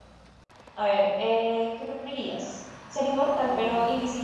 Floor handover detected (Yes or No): No